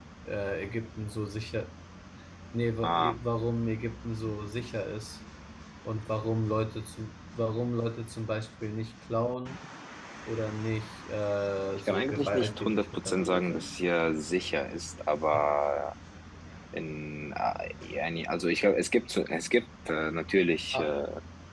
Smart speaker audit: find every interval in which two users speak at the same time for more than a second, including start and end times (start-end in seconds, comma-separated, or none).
11.7-13.7